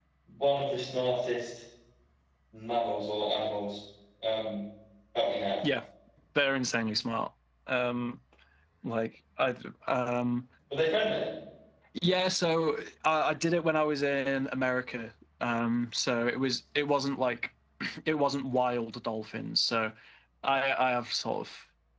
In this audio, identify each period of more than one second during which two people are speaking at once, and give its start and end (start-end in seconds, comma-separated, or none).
none